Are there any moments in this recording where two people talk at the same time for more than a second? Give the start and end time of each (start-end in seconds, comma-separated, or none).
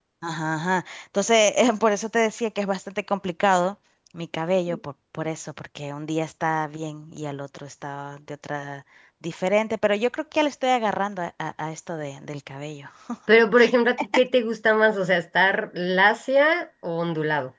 none